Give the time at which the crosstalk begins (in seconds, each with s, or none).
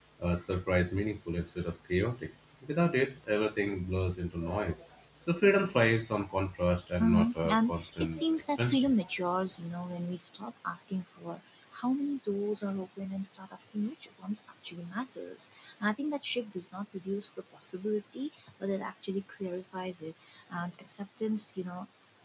7.0 s